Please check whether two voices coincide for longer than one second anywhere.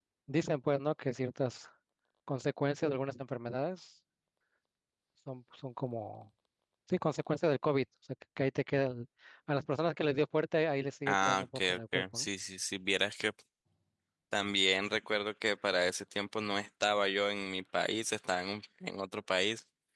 Yes, from 11.1 s

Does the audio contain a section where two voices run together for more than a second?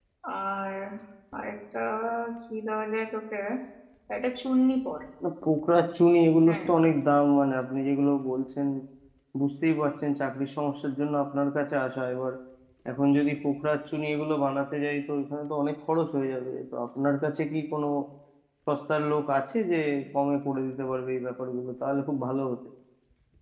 No

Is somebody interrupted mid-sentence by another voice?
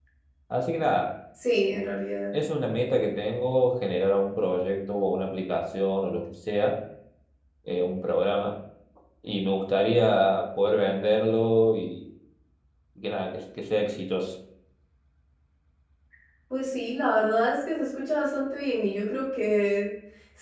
No

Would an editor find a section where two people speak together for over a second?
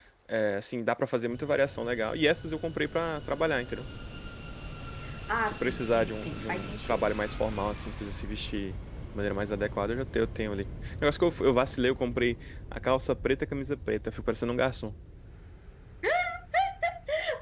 Yes, from 5.5 s

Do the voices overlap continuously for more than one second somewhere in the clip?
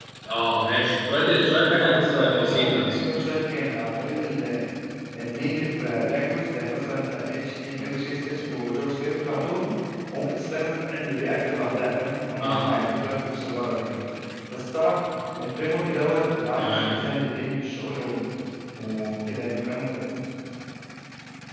Yes, from 1.8 s

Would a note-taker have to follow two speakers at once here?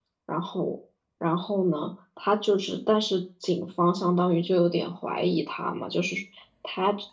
No

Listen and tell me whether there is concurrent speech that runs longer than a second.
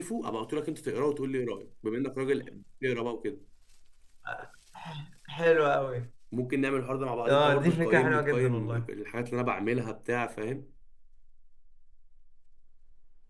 Yes, from 7.3 s

